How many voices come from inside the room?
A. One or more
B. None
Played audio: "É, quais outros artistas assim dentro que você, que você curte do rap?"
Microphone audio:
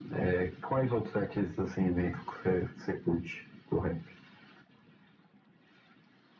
B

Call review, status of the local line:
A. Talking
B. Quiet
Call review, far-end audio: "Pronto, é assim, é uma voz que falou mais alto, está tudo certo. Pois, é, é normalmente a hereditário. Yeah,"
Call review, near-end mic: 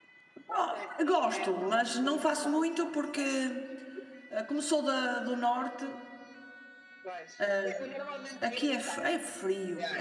A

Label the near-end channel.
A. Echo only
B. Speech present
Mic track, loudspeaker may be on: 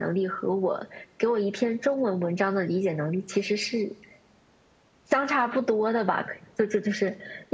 A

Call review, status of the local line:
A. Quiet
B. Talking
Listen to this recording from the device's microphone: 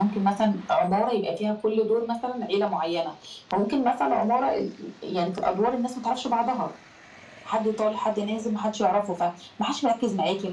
A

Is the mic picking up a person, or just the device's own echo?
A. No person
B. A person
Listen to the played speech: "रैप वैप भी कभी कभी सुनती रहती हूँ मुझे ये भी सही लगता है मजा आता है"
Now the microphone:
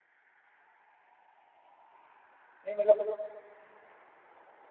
B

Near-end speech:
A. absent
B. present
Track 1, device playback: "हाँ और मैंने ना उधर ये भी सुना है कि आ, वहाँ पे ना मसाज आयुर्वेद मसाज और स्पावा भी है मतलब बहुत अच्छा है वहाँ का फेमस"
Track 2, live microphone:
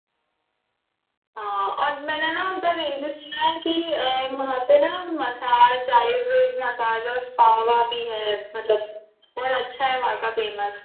A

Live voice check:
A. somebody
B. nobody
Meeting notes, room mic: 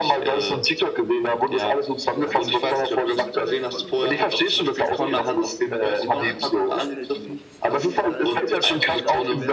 A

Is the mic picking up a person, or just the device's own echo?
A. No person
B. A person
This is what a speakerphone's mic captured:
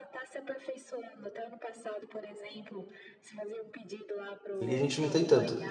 B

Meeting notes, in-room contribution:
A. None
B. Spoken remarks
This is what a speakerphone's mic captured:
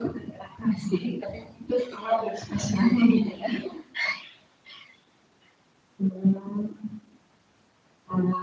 A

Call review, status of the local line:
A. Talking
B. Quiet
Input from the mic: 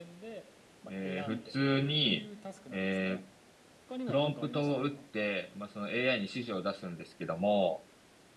A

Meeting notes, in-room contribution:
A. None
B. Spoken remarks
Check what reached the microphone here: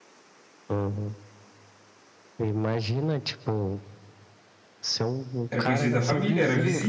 B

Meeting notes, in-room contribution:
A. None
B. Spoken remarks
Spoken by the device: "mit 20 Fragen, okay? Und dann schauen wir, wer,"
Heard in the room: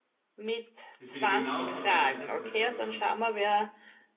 B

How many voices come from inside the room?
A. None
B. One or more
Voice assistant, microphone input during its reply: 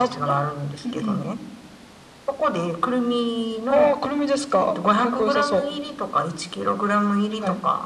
A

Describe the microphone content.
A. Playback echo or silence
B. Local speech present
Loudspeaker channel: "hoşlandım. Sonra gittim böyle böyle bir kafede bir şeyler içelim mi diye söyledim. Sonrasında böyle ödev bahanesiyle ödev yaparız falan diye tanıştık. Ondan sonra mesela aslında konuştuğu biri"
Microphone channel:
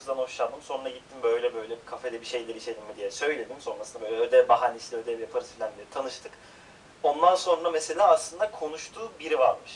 A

